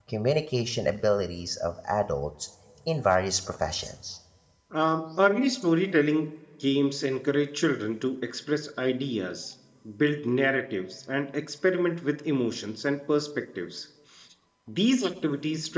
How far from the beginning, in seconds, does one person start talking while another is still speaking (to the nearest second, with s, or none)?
none